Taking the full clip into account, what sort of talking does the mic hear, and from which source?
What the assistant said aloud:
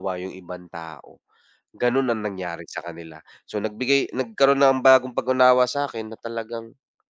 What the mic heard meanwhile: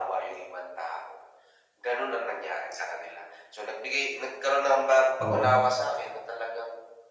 both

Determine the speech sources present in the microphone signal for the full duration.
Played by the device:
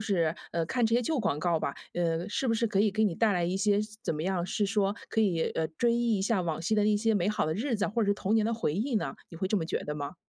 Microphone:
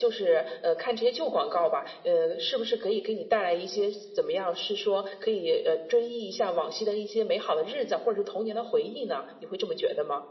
echo only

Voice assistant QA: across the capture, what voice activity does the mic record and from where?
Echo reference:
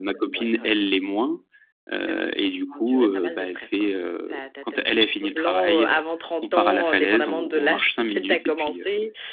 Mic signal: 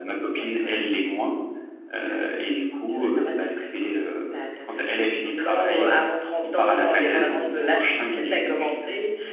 echo only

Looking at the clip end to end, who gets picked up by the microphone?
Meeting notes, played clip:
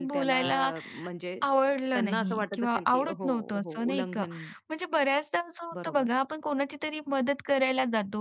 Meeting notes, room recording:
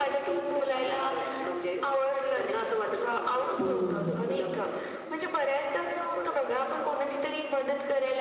both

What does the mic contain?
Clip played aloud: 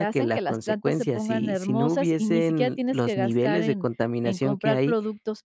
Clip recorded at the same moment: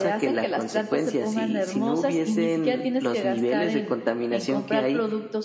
echo only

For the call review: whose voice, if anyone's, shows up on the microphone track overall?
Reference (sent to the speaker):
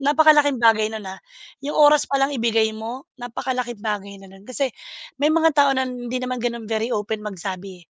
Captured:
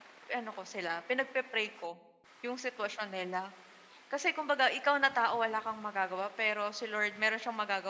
user only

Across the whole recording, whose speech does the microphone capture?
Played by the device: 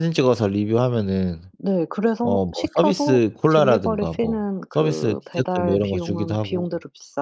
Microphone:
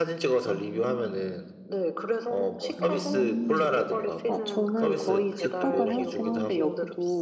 both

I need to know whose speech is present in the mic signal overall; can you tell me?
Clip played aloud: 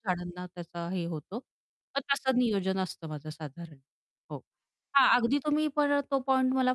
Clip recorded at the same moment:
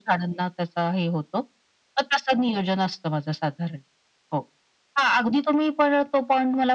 echo only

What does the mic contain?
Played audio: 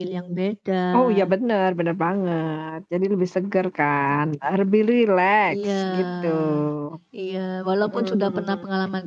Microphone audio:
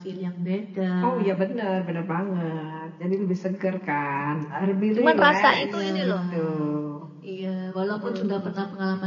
both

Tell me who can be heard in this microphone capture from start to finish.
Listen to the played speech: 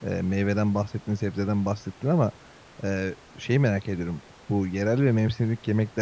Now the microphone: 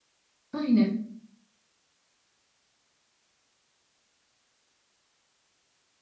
user only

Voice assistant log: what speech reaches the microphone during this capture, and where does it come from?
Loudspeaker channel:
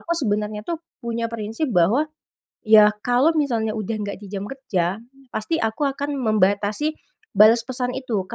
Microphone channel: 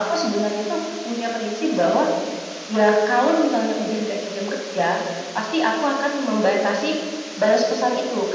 echo only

